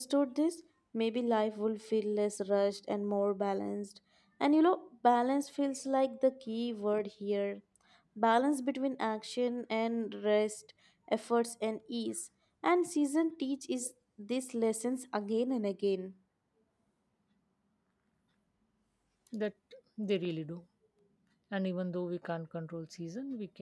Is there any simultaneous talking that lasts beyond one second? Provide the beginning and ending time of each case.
none

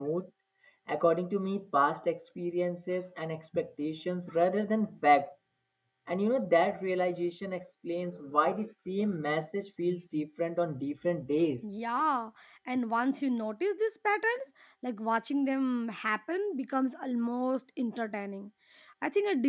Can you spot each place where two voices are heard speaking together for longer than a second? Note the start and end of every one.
none

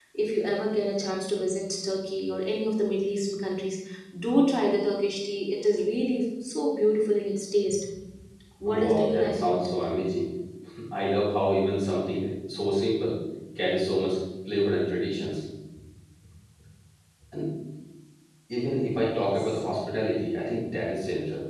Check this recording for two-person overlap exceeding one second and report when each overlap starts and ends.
8.7-9.9

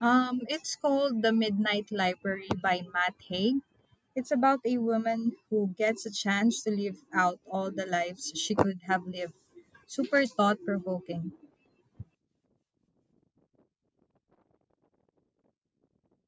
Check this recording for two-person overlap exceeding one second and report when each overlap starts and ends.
none

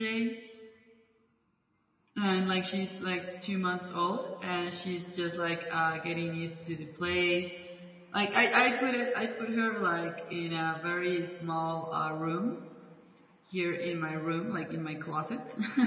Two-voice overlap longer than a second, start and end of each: none

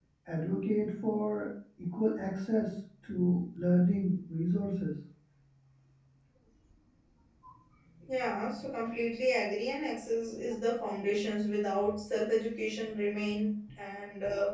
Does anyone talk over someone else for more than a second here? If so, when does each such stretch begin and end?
none

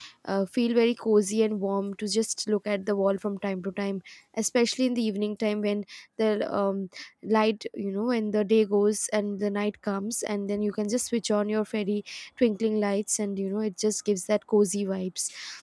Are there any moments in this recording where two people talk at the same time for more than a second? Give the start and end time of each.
none

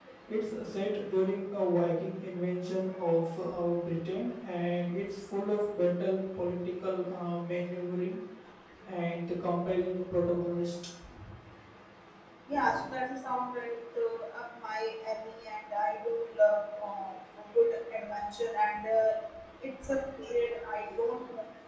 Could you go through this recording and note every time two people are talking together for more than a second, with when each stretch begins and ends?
none

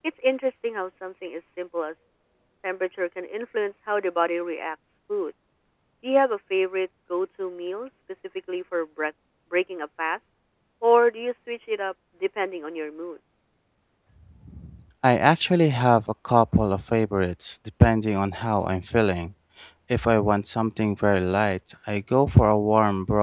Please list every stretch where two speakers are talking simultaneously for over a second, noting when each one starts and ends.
none

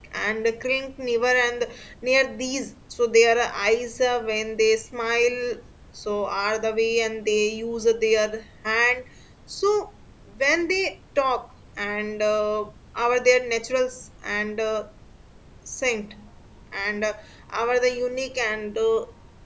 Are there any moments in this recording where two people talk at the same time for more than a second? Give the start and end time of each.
none

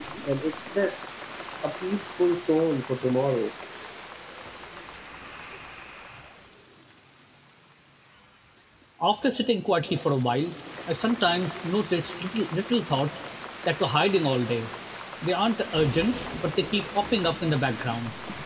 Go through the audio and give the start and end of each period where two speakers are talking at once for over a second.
none

